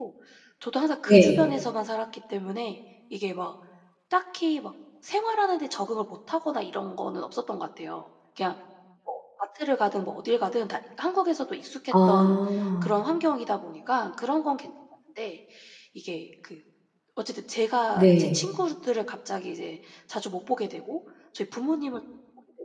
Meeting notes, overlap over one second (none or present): none